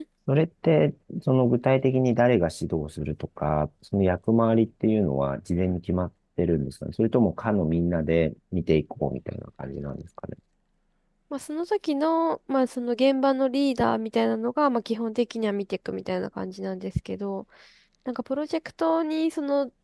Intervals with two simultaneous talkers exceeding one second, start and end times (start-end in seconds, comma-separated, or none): none